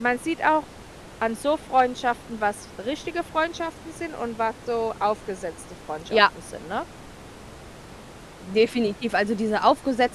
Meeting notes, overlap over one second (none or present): none